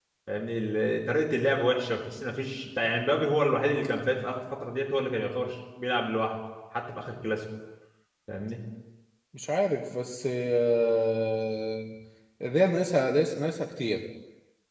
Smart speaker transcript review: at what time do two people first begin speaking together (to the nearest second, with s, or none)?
none